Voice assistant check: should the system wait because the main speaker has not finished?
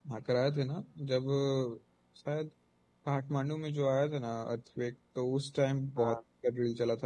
Yes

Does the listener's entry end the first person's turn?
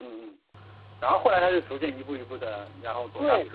Yes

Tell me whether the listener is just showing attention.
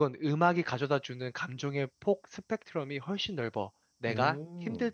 Yes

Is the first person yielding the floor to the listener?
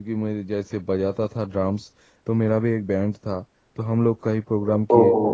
No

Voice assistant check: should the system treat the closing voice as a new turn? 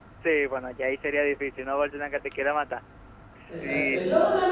Yes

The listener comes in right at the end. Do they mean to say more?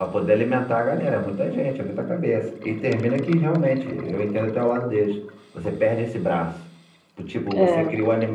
No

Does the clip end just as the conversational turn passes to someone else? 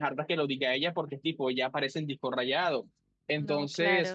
No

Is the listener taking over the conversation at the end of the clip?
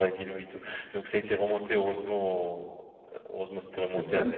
No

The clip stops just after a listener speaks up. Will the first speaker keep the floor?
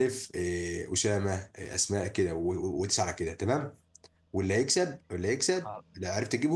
Yes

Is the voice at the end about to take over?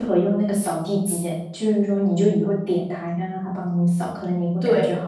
Yes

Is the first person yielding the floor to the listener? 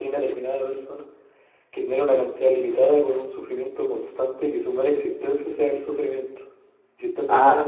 No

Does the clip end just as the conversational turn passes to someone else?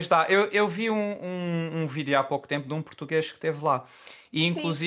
Yes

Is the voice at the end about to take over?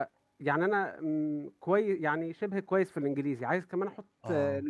No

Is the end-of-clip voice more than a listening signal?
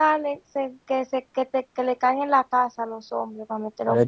Yes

